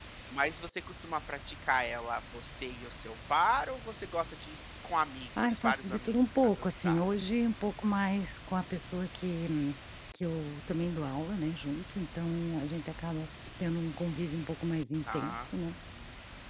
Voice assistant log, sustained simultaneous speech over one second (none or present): present